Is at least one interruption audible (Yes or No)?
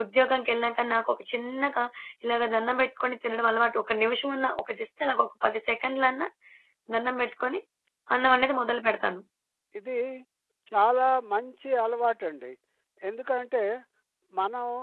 No